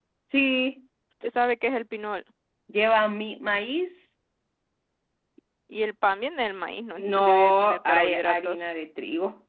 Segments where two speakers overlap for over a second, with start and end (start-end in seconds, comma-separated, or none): 7.0-8.6